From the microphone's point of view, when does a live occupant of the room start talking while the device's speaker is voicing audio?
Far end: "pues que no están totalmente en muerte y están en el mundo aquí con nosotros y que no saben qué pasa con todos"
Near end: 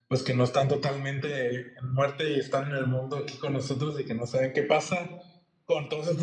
none

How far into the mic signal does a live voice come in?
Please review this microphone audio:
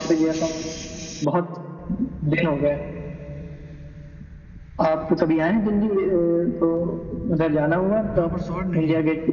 8.1 s

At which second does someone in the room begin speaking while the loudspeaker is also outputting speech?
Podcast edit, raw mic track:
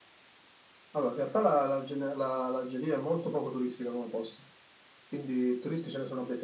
none

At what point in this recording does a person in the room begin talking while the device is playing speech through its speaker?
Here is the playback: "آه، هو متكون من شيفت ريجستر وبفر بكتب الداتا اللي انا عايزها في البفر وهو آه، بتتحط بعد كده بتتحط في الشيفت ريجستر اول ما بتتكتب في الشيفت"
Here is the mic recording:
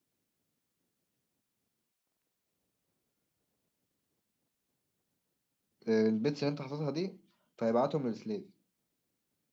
5.9 s

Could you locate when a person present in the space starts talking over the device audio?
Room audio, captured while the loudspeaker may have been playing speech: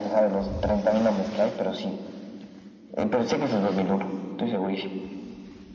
none

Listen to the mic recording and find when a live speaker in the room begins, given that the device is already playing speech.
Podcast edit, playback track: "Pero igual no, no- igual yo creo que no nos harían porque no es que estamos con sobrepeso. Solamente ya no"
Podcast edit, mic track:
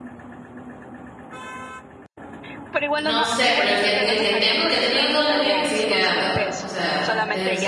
3.0 s

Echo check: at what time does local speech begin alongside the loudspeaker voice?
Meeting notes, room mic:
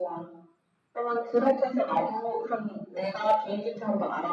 none

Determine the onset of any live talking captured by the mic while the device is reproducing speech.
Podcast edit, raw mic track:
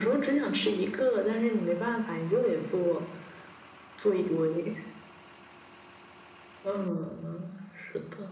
none

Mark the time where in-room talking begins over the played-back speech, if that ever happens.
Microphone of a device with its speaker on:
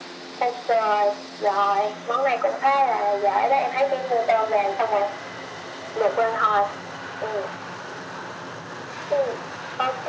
none

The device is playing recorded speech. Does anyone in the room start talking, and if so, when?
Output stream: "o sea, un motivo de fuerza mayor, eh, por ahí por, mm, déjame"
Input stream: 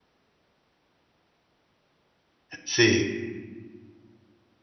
2.6 s

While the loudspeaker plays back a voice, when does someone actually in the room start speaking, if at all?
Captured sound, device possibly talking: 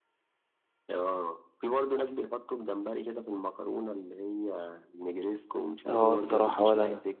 5.9 s

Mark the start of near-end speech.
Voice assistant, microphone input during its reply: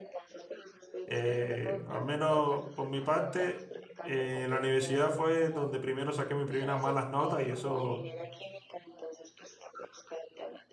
1.0 s

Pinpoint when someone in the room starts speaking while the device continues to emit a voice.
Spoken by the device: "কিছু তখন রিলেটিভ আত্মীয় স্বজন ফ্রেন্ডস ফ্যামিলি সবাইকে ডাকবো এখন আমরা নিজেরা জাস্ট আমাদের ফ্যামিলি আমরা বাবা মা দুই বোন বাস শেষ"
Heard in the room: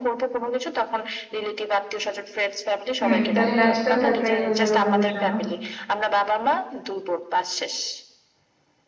3.0 s

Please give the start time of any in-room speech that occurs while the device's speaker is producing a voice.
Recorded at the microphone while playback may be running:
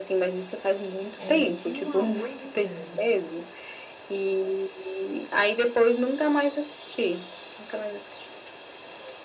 1.2 s

